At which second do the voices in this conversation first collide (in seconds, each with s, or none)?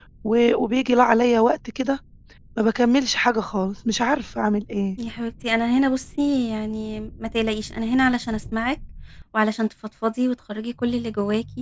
none